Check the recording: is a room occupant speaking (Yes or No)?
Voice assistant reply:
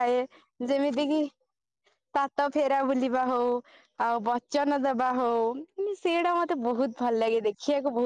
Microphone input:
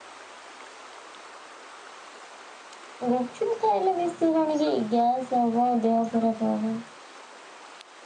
Yes